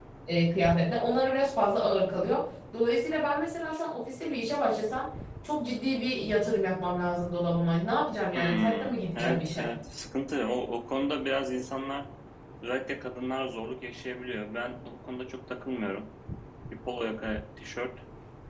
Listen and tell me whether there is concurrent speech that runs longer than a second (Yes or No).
Yes